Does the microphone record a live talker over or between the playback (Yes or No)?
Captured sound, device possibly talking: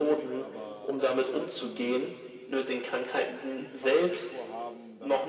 Yes